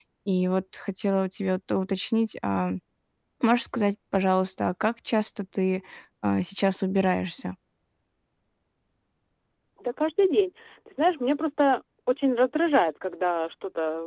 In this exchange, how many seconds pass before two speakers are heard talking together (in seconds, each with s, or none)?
none